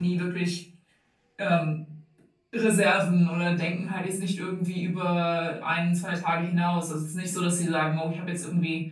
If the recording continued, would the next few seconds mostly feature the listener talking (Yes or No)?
No